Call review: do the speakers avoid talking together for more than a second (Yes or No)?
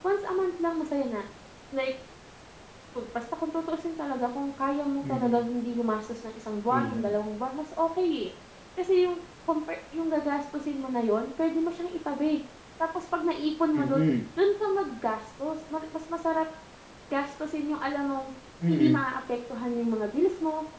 Yes